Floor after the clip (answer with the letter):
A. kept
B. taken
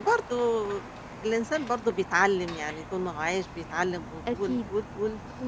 A